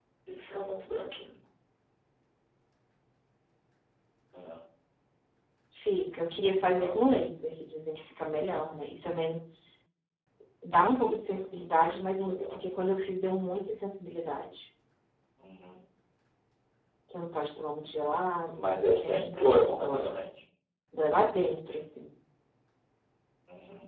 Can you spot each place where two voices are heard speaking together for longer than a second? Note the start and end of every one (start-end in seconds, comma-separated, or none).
18.5-20.1